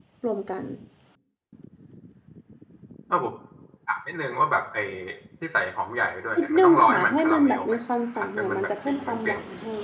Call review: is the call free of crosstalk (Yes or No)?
No